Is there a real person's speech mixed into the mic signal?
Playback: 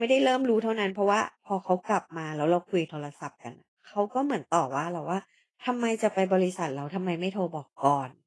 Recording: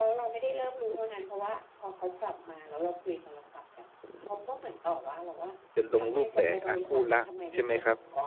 Yes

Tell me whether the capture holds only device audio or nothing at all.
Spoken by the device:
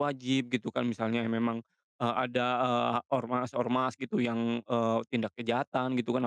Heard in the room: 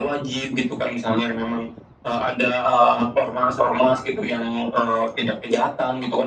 Yes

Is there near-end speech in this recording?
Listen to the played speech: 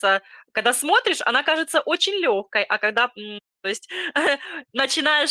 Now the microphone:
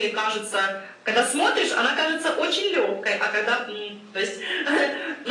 No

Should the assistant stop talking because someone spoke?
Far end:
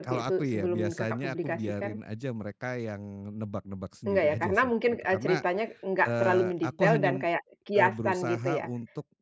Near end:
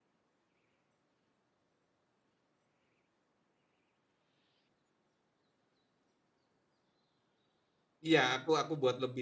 Yes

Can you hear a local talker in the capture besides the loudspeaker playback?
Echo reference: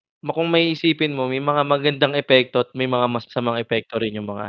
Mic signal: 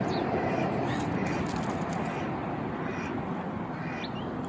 No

